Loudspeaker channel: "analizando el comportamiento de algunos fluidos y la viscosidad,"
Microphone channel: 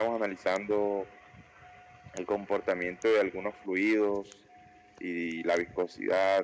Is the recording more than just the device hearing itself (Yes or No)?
No